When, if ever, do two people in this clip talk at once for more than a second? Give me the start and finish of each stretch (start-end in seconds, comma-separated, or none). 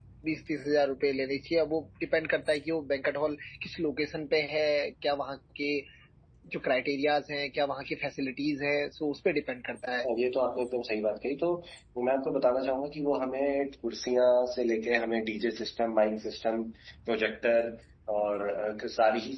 none